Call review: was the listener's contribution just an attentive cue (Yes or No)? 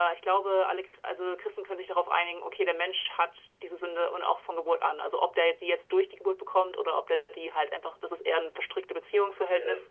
Yes